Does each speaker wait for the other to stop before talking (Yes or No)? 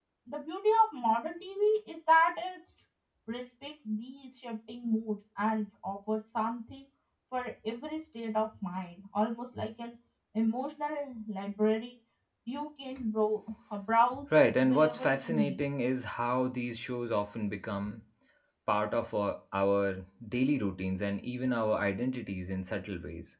No